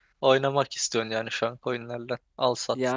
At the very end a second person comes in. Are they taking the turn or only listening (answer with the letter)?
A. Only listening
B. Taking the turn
B